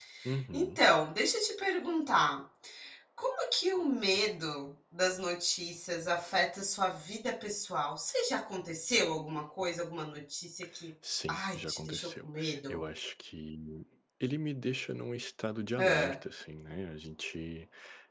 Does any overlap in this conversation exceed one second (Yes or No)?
Yes